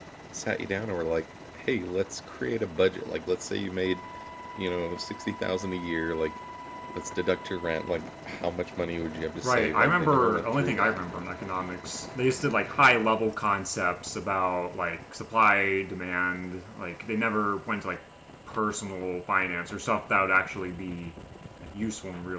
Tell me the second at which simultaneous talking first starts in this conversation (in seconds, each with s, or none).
9.4 s